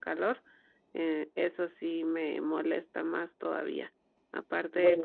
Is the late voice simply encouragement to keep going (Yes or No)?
Yes